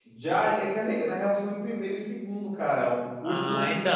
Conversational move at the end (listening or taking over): taking over